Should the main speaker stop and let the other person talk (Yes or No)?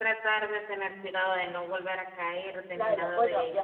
Yes